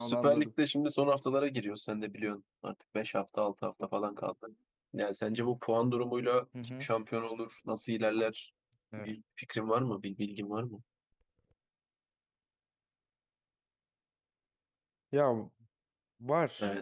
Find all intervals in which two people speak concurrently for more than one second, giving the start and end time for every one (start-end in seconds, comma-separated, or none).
none